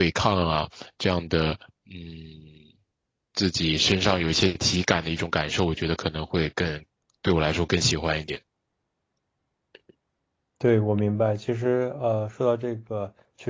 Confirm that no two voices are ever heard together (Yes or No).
Yes